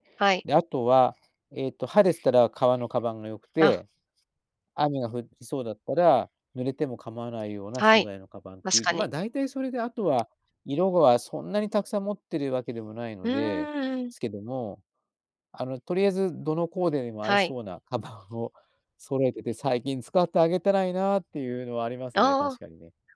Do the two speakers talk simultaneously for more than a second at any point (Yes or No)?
No